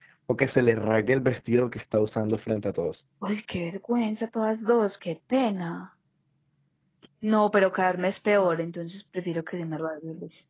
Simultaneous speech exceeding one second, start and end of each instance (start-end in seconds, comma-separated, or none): none